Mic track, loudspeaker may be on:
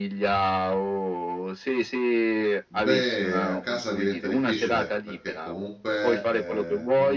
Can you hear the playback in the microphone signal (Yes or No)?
Yes